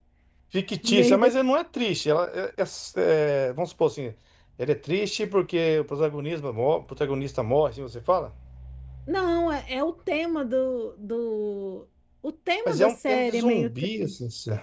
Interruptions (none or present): present